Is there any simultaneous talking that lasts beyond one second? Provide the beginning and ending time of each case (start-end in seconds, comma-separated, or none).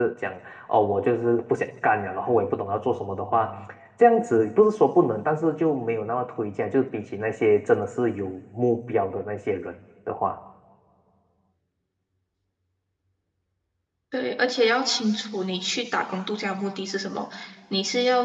none